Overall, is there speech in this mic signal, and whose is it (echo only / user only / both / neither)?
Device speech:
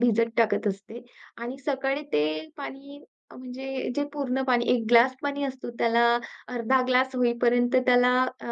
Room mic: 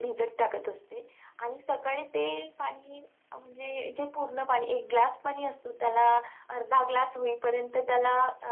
echo only